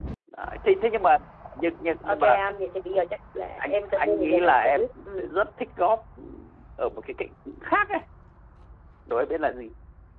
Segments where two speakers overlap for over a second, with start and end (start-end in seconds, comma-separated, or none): 3.6-5.3